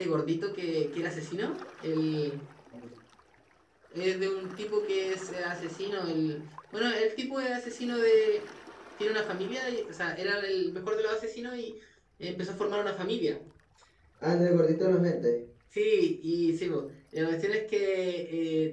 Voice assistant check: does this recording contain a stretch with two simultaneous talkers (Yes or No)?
No